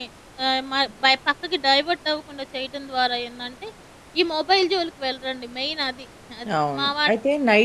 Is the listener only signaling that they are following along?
No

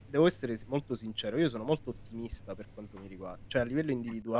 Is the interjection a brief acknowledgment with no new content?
Yes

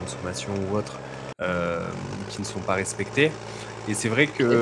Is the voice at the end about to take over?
No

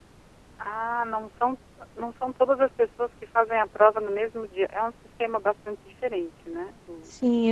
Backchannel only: No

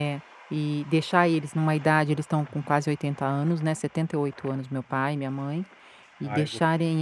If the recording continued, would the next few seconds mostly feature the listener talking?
No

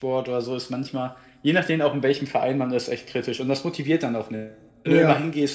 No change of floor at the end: Yes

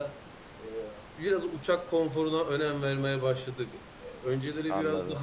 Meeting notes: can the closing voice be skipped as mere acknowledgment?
Yes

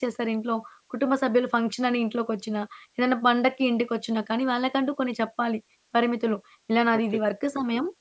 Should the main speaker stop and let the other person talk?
No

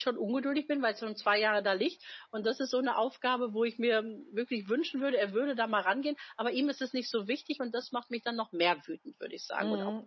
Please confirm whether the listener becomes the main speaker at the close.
Yes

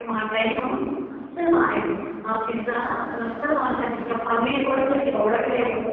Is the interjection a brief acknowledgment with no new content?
No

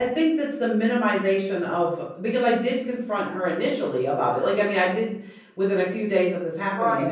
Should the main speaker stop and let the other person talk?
Yes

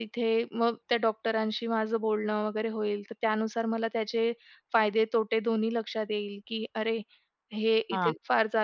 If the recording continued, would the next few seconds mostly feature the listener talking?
No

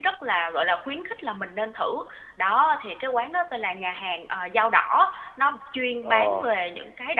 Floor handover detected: No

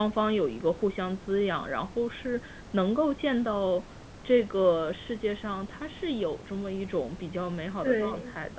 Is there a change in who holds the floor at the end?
Yes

